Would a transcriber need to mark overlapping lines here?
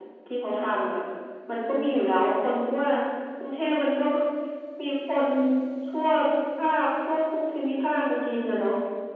No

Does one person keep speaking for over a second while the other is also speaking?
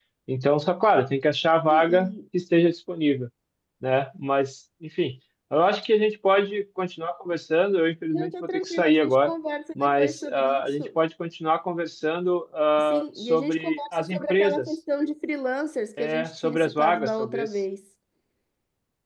Yes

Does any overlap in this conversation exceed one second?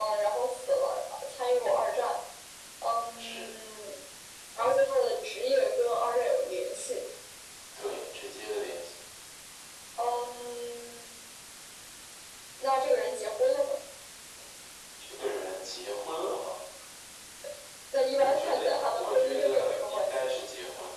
Yes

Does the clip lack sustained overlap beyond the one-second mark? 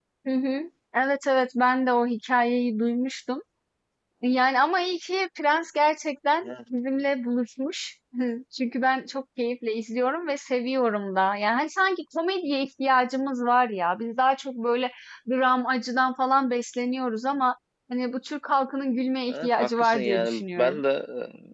No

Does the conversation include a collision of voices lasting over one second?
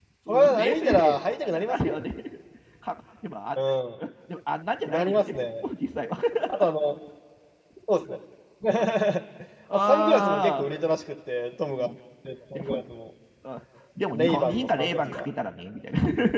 Yes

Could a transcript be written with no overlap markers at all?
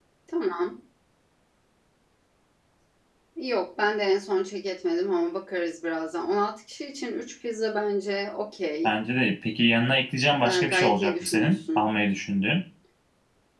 No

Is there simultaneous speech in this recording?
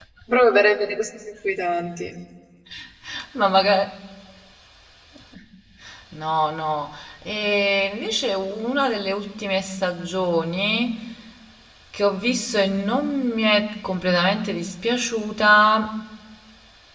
No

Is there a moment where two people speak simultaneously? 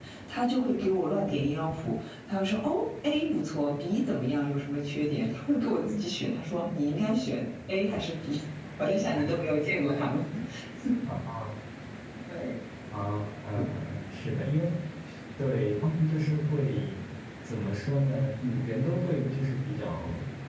No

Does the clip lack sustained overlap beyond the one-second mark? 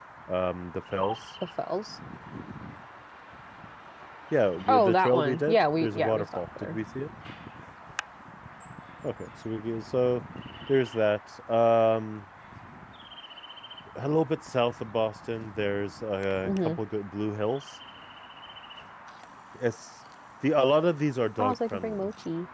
No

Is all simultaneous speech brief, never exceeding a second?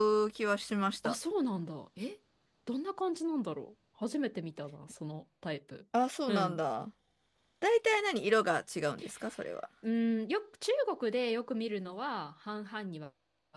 Yes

